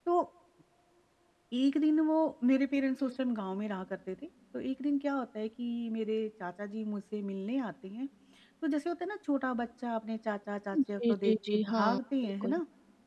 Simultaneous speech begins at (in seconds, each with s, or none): 11.0 s